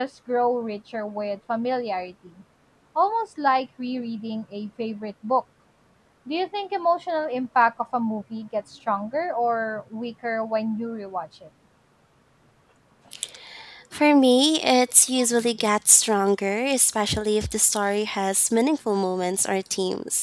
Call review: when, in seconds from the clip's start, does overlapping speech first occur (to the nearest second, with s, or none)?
none